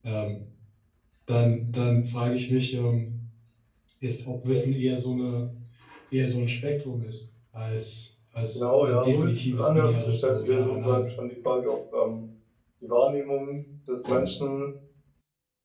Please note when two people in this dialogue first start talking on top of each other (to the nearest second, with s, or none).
9 s